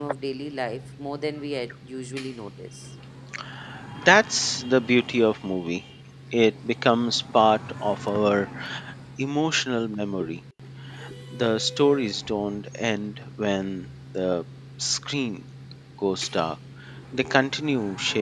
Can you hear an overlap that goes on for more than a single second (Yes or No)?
No